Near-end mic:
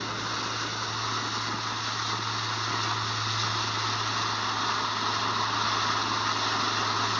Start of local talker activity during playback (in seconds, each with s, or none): none